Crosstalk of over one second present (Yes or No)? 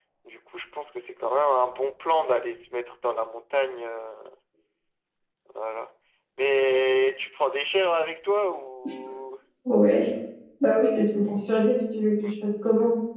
No